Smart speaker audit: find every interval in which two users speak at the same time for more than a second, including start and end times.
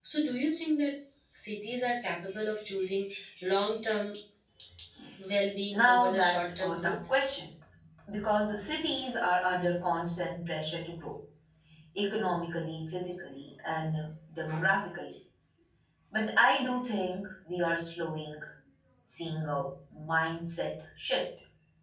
5.7-7.0

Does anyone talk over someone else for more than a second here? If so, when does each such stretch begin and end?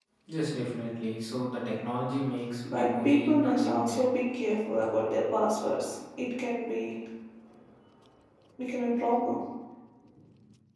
2.6-4.0

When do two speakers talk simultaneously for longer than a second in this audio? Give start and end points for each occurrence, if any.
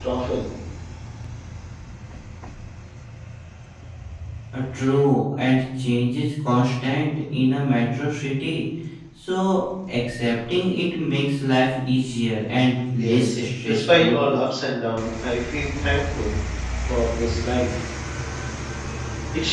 13.0-14.2

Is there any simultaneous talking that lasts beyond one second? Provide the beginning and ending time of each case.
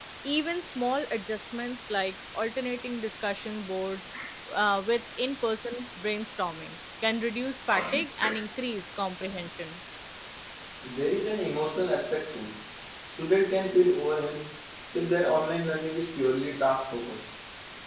none

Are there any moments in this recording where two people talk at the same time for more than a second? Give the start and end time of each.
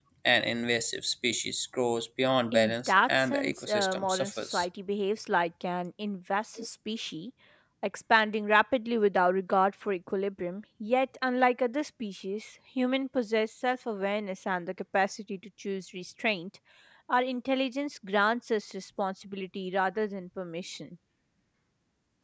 2.5-4.7

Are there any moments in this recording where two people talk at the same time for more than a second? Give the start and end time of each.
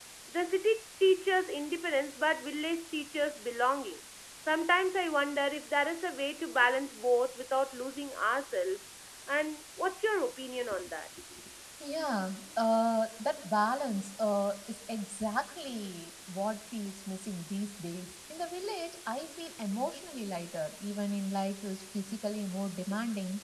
none

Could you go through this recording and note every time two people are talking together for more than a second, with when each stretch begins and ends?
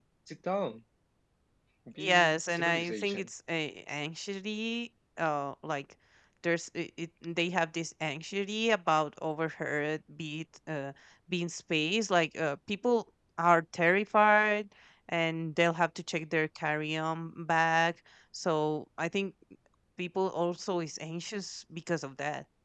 2.0-3.3

